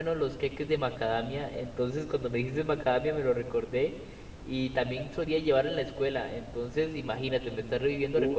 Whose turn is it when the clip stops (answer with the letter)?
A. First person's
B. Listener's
B